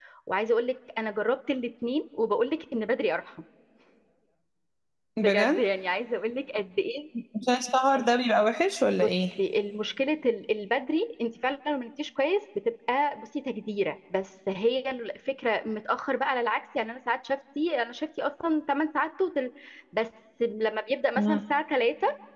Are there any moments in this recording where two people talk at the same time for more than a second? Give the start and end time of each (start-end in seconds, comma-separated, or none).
none